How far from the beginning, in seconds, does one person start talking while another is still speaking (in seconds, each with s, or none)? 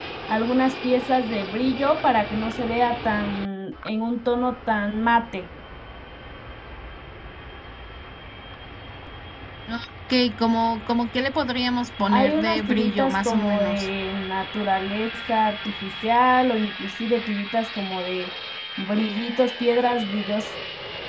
12.1 s